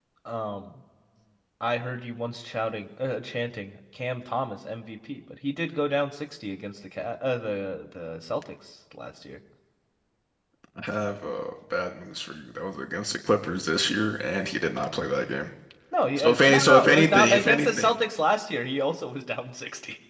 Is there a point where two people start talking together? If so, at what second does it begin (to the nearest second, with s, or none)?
16 s